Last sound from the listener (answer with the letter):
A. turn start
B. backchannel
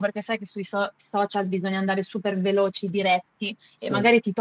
B